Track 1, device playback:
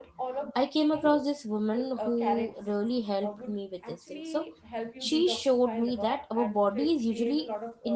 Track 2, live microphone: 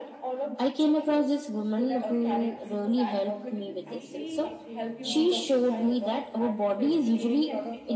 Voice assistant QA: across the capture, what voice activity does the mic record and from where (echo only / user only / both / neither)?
both